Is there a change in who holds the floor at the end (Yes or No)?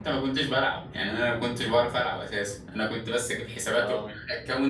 No